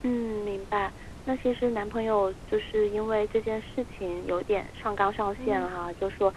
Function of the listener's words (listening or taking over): listening